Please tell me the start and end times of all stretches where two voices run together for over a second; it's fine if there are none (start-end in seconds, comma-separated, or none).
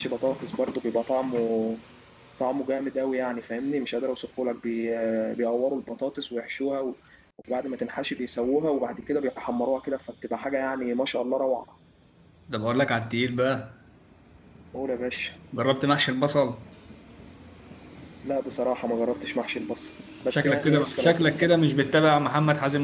20.3-21.5